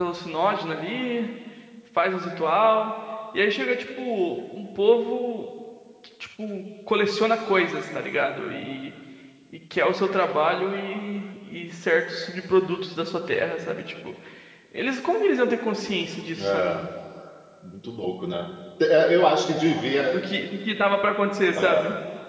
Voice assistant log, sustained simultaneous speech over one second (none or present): none